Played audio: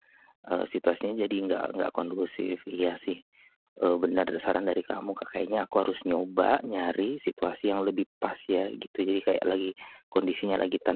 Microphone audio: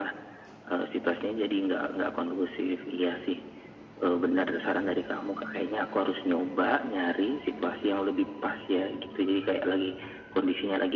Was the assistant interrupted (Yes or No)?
No